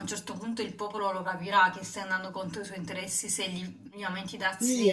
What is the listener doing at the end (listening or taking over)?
taking over